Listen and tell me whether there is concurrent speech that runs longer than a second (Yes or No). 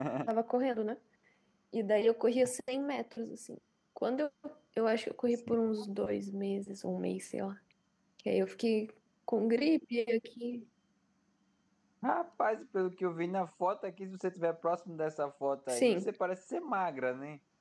No